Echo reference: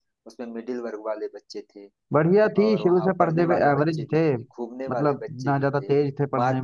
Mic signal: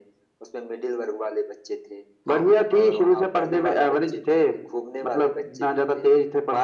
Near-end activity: present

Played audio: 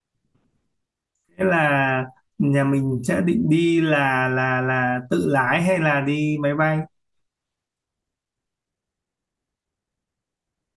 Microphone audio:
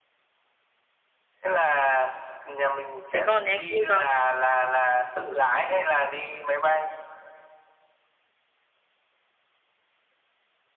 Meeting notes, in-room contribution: present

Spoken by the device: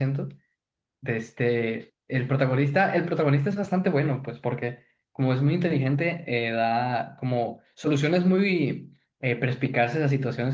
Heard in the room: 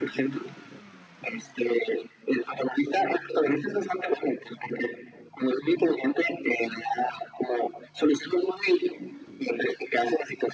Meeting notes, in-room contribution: none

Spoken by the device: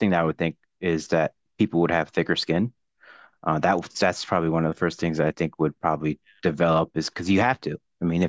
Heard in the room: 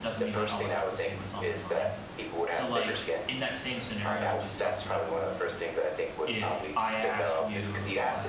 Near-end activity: present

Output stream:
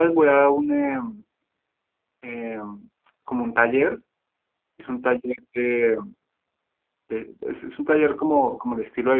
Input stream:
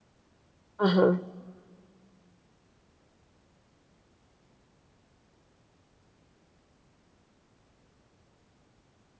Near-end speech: present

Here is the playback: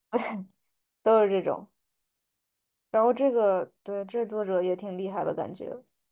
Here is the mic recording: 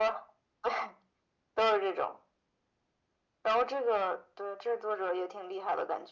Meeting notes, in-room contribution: none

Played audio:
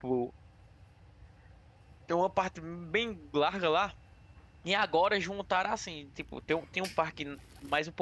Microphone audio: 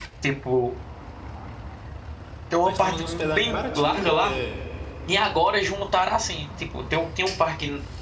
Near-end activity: present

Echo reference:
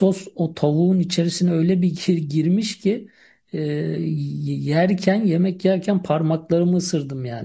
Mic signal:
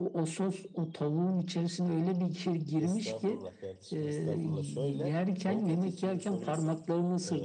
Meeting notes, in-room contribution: present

